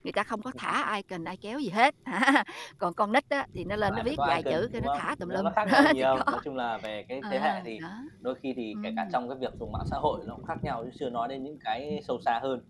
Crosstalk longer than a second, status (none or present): present